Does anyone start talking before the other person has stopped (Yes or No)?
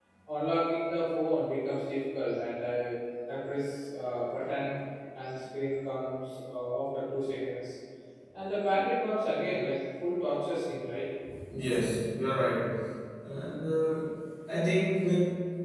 No